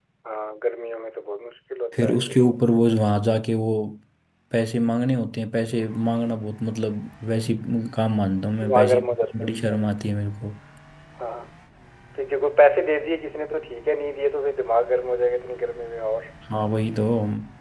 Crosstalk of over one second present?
No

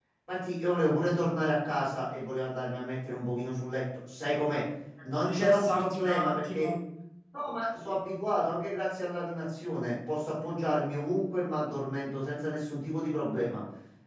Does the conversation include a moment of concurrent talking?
Yes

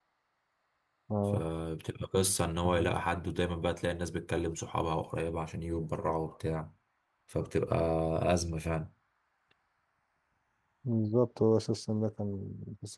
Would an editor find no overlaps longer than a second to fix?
Yes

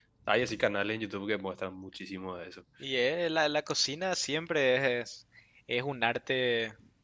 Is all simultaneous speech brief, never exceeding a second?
Yes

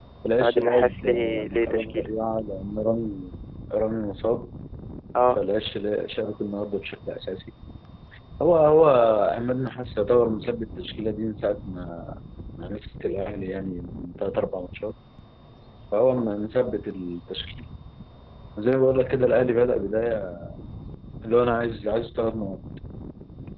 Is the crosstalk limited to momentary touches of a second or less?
No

